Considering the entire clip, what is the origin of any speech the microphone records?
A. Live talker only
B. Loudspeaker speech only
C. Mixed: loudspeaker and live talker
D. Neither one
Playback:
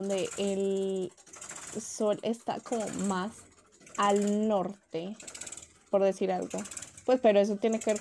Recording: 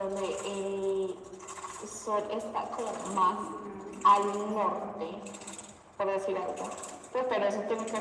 C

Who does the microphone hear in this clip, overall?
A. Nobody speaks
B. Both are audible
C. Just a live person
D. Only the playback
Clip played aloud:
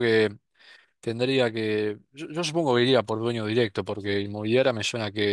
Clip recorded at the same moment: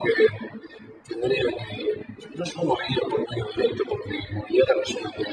D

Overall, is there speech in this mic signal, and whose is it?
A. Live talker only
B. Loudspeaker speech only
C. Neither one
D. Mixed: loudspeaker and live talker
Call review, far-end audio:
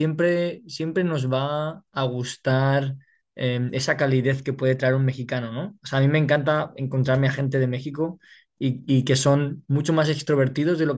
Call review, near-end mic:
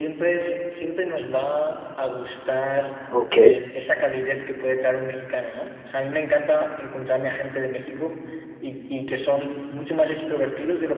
D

